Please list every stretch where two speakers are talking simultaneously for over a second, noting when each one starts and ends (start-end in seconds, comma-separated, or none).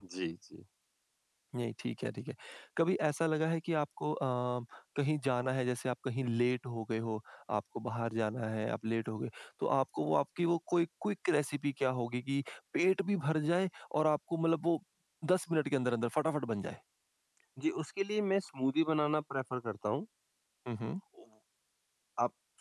none